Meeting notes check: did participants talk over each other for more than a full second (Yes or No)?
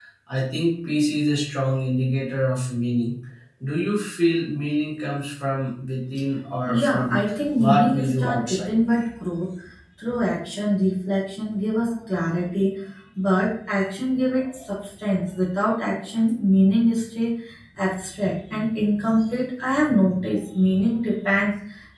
Yes